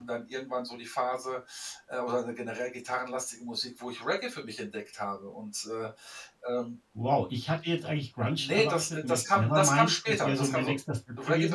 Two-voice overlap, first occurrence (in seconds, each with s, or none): 8.4 s